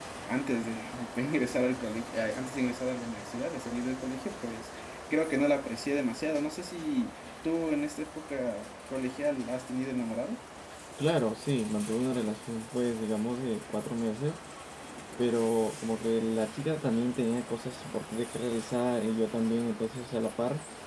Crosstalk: none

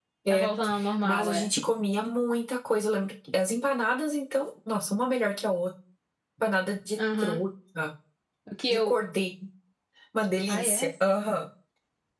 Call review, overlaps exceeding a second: none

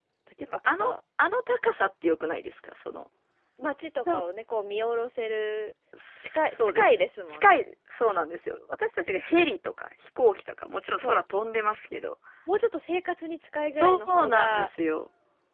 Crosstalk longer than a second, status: present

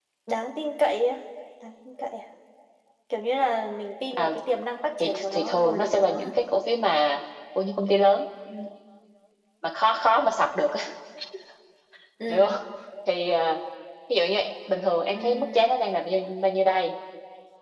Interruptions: present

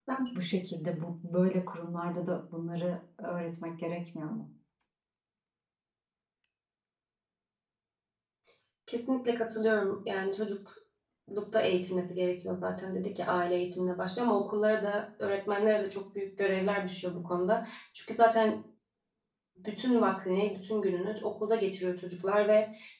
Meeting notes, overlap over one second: none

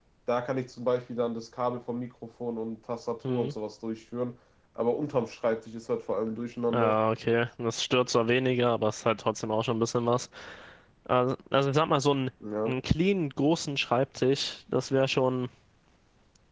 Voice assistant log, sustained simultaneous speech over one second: none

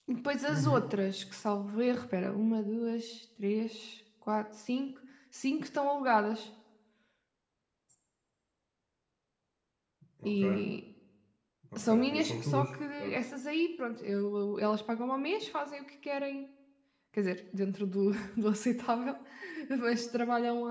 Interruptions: present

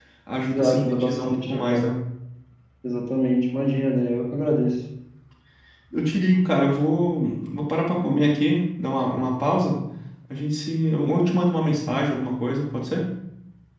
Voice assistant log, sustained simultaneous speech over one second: present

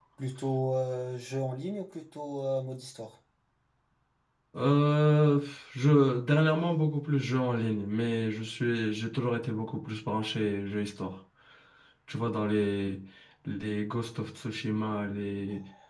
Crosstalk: none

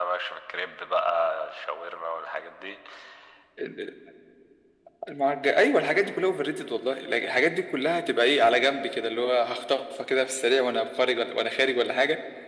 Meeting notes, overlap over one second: none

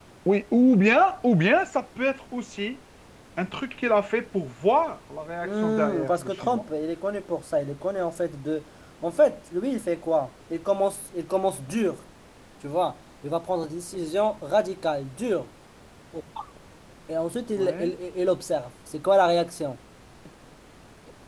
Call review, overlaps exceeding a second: present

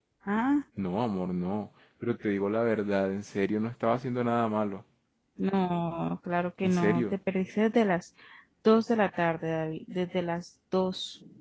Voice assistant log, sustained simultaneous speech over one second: none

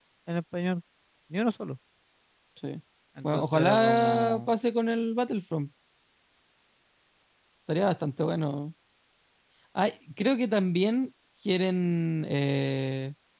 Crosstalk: present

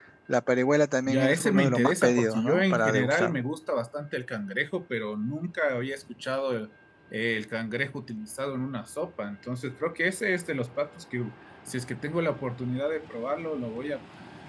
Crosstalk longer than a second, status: present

